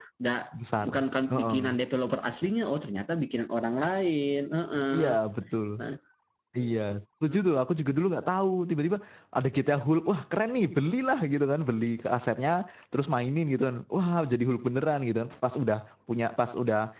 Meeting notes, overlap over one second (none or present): none